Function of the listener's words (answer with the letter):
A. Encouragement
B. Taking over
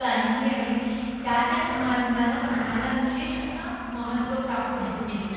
B